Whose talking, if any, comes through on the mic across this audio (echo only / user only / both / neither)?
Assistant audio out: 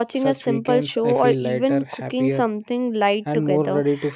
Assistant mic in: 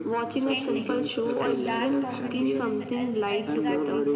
both